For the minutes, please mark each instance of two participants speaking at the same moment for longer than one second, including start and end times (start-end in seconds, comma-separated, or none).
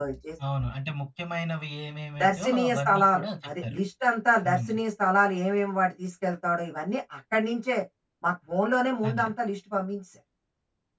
2.2-3.8